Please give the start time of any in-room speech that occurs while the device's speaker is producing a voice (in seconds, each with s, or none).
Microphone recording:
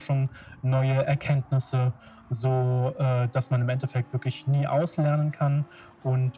none